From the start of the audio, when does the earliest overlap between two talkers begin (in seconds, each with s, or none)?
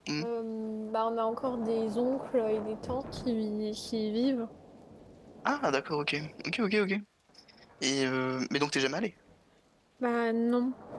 none